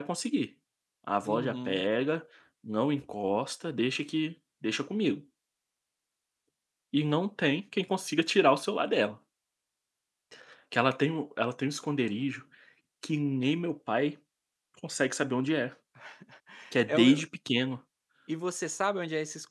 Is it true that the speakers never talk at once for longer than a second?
Yes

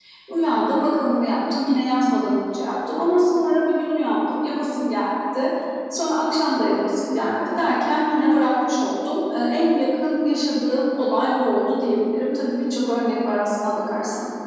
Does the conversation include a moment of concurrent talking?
No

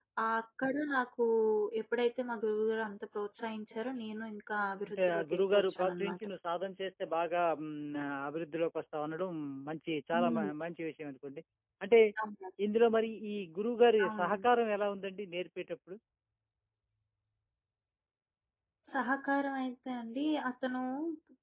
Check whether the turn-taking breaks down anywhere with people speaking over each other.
Yes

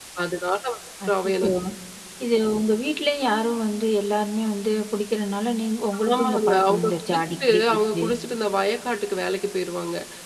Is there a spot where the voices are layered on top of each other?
Yes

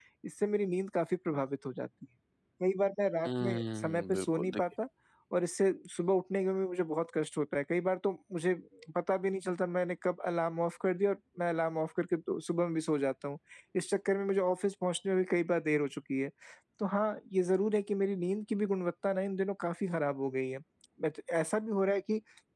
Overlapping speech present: Yes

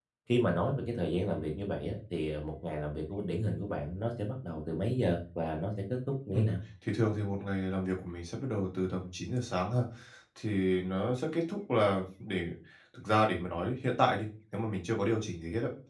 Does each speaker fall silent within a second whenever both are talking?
Yes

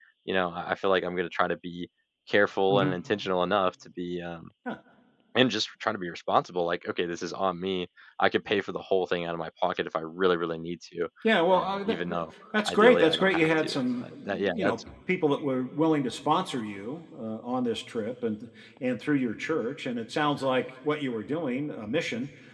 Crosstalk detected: Yes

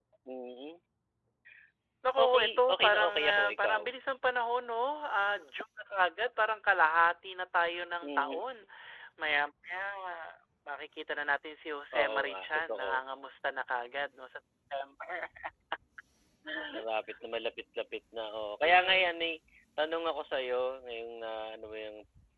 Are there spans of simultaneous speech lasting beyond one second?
Yes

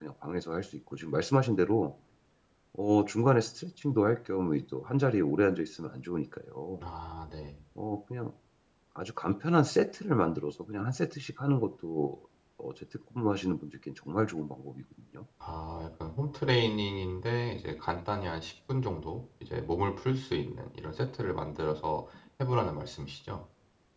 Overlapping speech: No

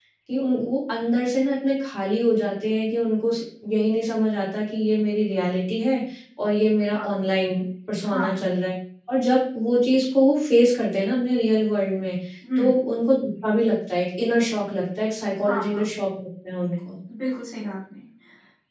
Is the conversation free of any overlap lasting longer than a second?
Yes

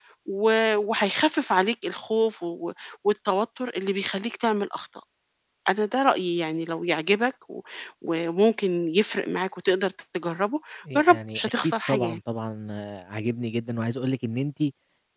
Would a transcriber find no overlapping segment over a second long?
No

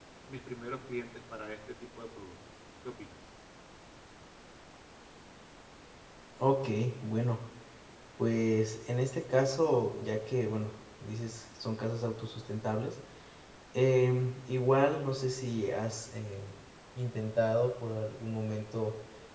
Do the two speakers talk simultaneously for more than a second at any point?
No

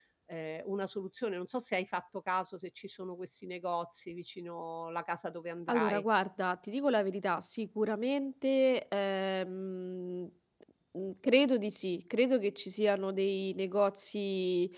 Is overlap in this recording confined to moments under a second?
Yes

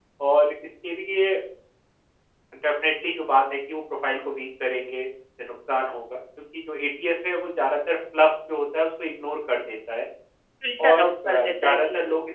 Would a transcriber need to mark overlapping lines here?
Yes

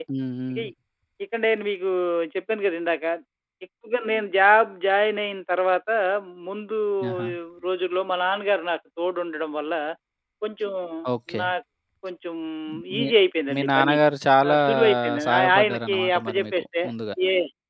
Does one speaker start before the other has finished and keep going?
Yes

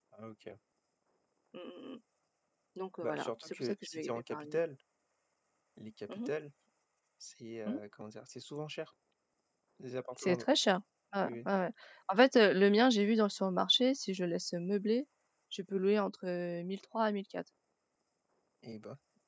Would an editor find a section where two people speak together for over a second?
Yes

